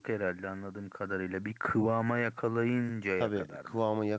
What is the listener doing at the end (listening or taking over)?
taking over